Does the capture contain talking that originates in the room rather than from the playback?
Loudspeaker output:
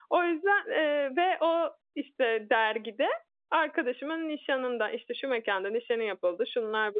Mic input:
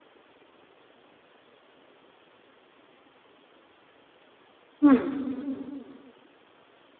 Yes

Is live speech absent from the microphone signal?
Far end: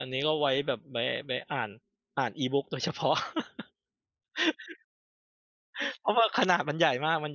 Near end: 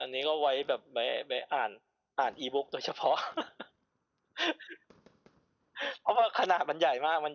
Yes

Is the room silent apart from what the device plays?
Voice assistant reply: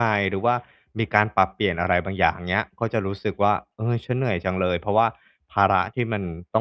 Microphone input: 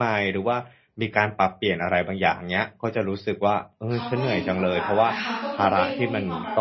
No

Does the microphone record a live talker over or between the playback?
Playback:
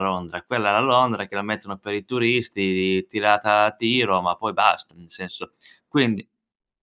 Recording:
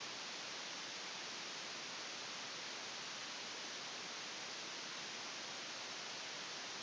No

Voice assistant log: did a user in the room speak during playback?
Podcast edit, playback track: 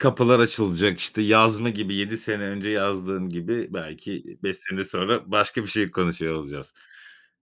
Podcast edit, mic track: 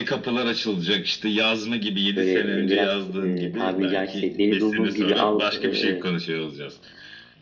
Yes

